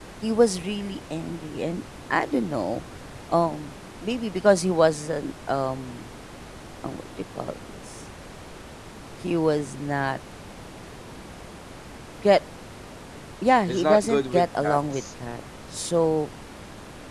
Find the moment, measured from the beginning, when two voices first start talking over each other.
13.7 s

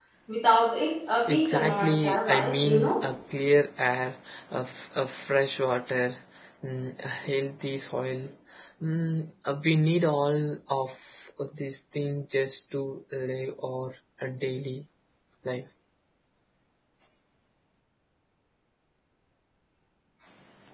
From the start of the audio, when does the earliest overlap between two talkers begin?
1.3 s

